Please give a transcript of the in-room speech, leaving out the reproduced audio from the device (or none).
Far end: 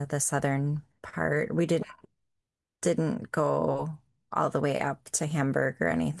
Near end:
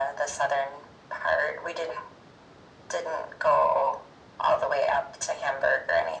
none